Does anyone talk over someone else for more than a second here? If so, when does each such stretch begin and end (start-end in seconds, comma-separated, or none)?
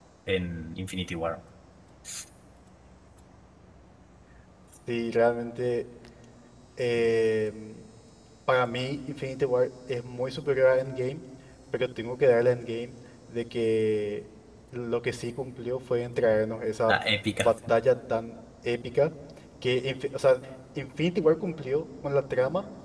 none